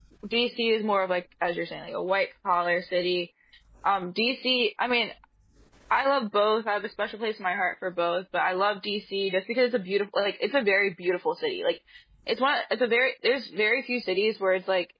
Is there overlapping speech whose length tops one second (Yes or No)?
No